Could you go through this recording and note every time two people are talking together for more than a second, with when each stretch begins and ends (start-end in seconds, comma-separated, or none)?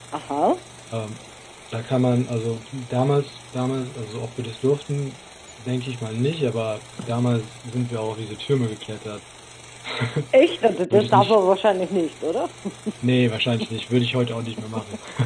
none